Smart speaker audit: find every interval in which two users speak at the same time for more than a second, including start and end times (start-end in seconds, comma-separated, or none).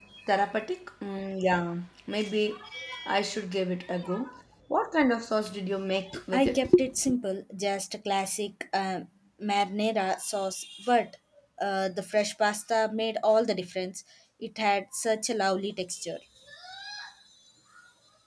none